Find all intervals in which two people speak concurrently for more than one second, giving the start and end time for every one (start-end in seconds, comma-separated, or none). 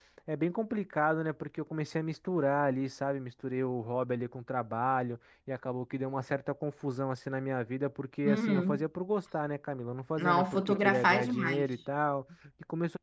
10.2-11.6